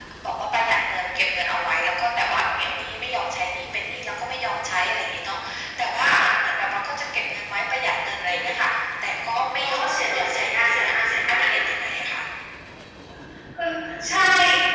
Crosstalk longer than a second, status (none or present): present